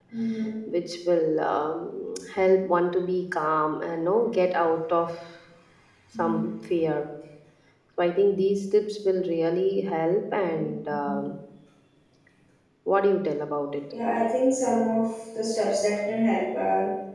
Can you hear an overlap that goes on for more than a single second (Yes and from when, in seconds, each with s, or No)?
No